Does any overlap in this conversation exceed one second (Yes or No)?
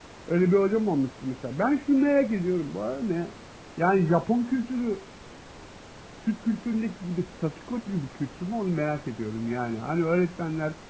No